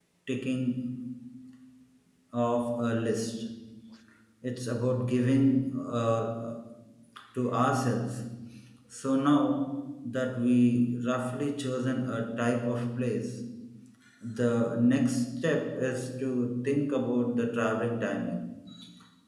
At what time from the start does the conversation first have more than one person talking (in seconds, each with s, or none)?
none